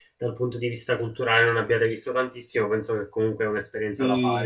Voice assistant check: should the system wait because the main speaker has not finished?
No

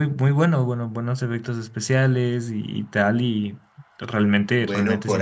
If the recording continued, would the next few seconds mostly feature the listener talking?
Yes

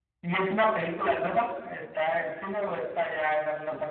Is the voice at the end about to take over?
Yes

